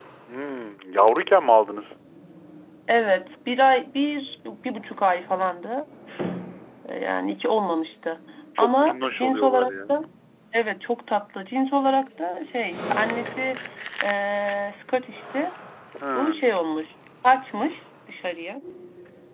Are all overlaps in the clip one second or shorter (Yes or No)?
No